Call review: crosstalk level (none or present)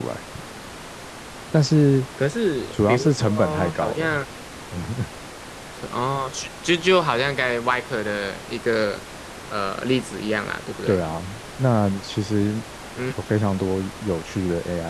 present